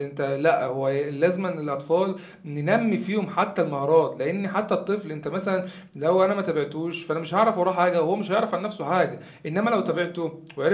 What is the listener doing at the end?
listening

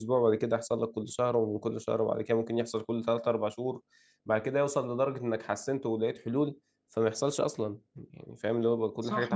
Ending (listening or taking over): taking over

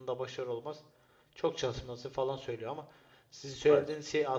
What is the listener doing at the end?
listening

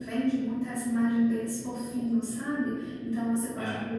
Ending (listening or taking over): listening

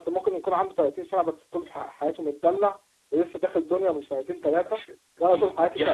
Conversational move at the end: taking over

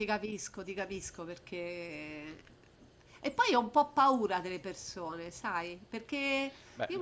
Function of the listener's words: listening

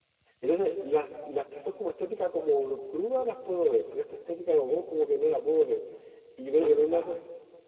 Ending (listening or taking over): listening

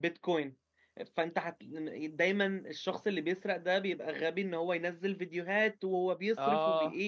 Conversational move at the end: listening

